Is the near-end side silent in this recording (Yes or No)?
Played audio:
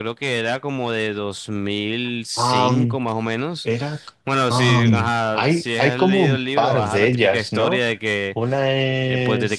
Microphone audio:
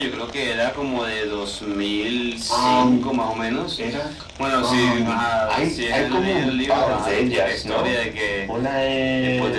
Yes